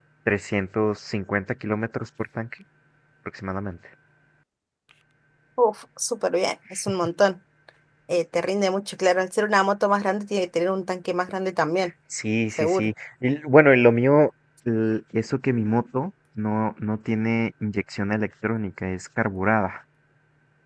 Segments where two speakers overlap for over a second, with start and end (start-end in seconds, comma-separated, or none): none